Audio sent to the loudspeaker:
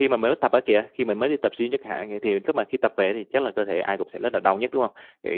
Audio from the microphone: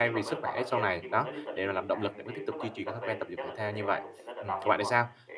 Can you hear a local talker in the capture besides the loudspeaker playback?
Yes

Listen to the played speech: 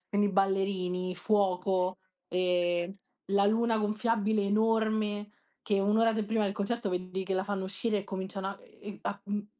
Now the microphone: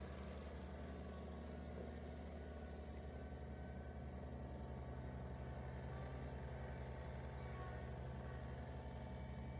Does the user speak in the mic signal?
No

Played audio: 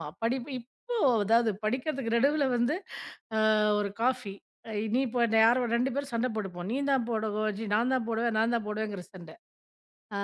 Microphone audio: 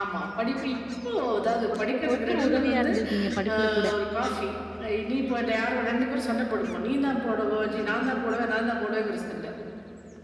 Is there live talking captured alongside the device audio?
Yes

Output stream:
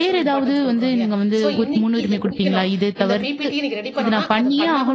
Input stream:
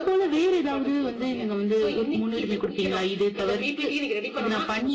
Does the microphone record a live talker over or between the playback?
No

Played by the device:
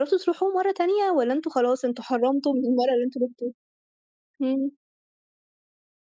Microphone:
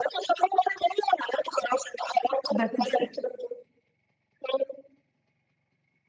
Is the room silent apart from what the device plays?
No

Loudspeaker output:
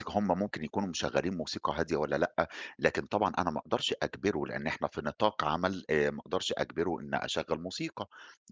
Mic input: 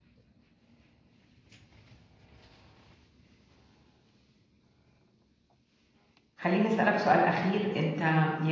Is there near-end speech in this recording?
Yes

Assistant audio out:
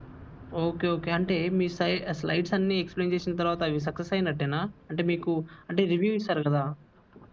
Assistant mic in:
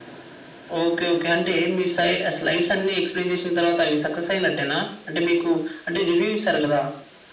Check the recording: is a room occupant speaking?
No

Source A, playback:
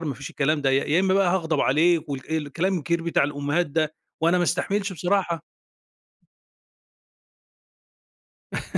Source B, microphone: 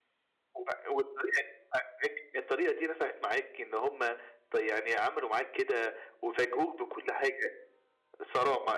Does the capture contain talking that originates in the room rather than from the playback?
Yes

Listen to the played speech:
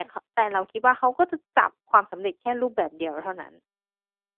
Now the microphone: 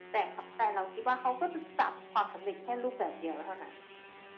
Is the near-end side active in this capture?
No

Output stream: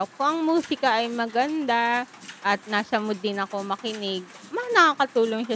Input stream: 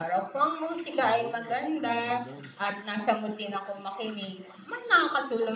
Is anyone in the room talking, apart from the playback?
Yes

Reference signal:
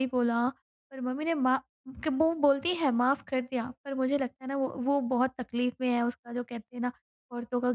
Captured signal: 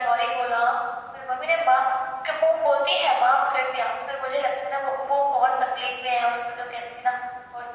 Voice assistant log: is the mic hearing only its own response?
Yes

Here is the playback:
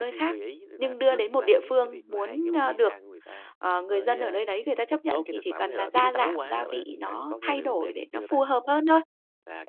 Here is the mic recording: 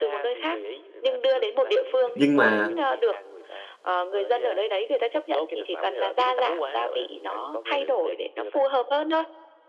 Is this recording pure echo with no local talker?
No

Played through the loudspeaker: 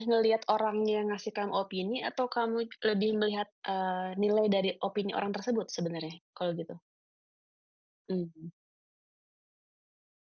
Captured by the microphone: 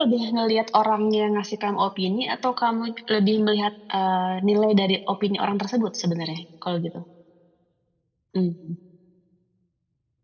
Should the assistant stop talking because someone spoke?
No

